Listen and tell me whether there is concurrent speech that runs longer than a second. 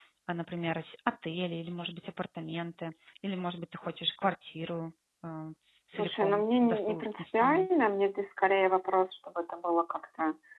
Yes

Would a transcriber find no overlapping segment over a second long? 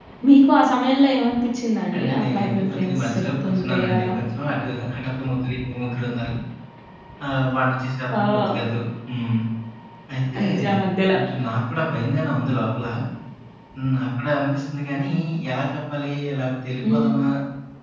No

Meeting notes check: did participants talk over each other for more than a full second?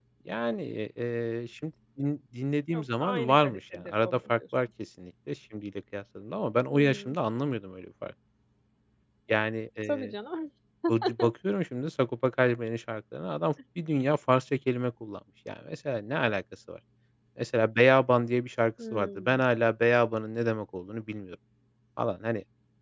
Yes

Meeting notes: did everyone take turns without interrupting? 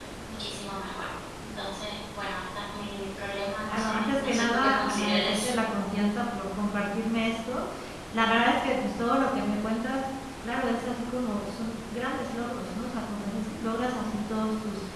No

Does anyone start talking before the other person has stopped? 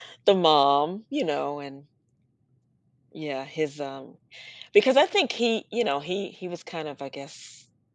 No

